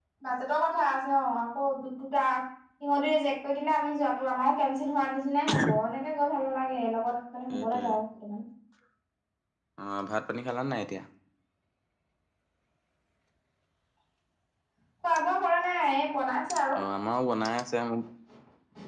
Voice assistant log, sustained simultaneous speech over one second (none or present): none